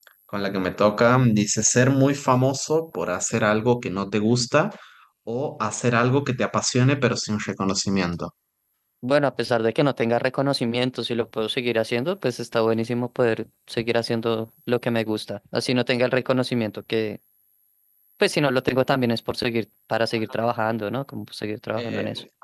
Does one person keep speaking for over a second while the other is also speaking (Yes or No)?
No